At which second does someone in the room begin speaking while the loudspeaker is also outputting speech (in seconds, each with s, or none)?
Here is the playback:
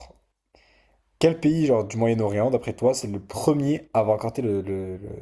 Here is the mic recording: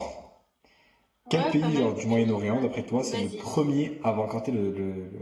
1.2 s